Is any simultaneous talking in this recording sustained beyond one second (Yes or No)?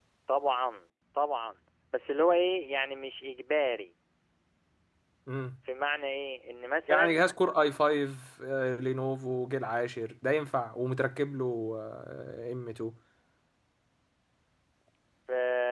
No